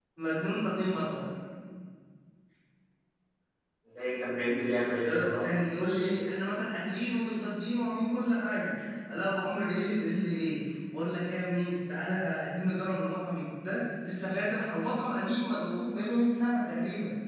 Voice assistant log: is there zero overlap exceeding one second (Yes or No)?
Yes